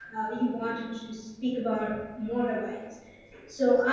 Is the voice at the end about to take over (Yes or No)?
No